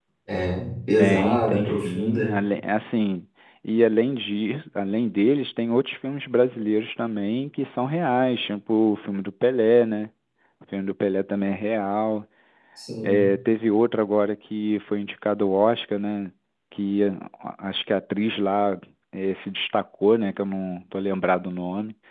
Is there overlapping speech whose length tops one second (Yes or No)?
Yes